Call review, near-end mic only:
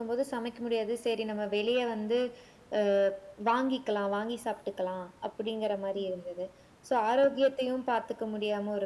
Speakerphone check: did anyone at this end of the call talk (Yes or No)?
No